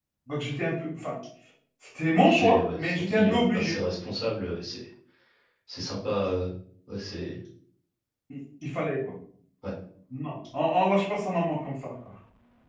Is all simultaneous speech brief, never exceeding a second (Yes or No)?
No